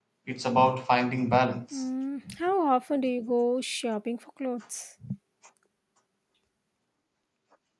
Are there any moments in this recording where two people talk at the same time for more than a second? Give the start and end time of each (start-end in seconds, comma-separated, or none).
none